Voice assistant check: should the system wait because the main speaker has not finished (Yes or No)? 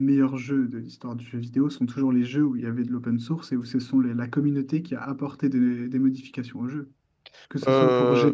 Yes